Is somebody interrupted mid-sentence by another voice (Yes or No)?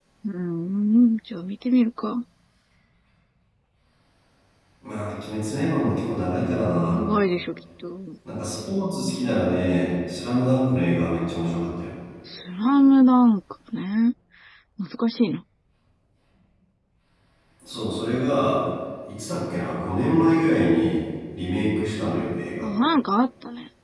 No